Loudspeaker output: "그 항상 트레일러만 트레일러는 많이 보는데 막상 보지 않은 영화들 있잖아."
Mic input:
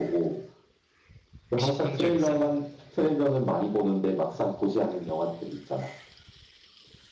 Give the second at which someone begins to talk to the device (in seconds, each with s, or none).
1.5 s